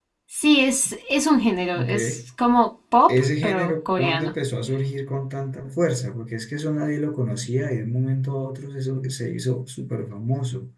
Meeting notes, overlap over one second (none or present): present